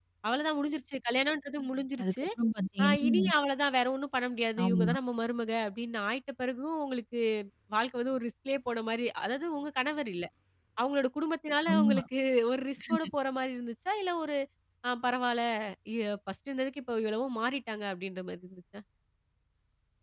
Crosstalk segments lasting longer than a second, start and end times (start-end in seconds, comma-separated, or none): none